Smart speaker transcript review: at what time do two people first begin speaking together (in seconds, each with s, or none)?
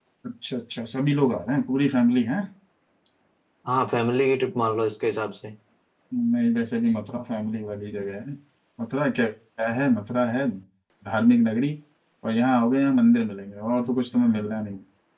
none